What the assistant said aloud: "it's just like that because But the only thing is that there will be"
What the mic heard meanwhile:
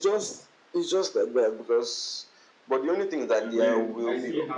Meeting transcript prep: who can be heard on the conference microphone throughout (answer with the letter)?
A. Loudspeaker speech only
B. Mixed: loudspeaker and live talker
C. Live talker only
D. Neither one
B